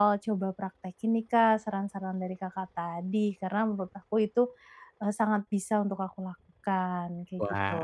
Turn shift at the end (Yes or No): Yes